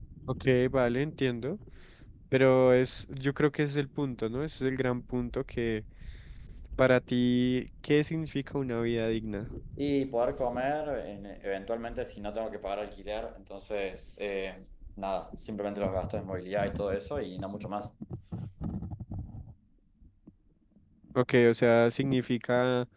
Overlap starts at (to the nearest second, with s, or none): none